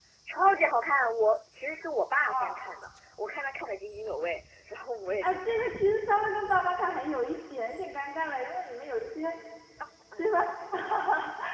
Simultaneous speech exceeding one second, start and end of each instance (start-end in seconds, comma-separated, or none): none